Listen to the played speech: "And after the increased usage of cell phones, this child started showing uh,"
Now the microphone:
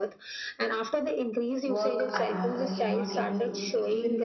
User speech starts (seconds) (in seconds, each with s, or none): 1.6 s